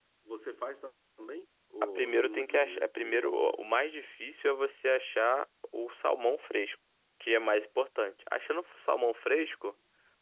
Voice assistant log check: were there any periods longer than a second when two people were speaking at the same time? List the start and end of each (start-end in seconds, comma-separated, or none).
1.8-3.5